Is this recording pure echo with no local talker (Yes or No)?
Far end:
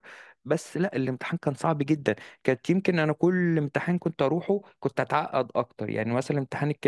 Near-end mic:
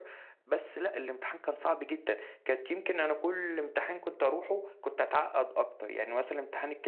Yes